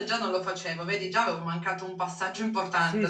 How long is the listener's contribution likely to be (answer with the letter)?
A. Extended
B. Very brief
A